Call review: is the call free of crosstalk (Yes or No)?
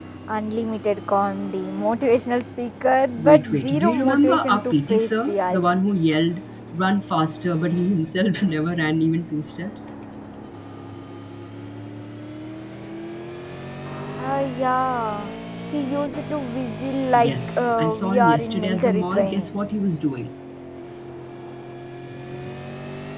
No